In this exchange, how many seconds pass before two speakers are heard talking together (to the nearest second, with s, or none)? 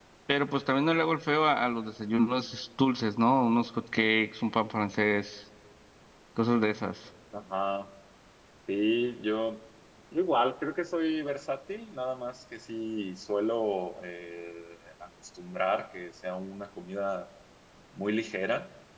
none